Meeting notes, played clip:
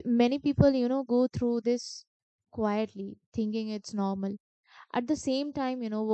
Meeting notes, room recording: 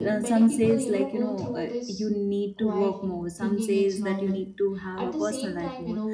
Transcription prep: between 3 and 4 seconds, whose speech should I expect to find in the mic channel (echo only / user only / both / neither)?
both